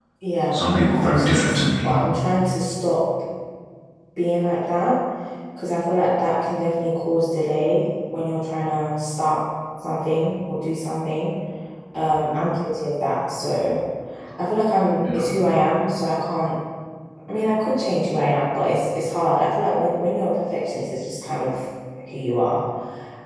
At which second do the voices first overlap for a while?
1 s

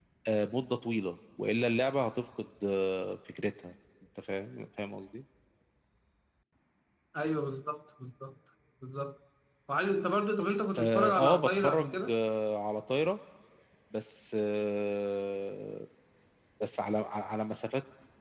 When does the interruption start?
11 s

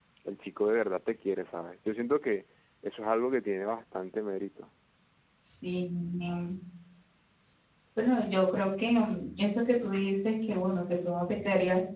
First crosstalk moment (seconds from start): none

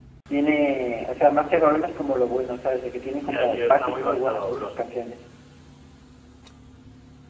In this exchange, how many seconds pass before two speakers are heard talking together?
3 s

